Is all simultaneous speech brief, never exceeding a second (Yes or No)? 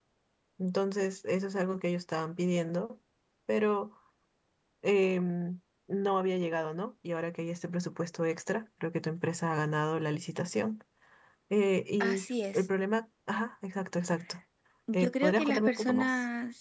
No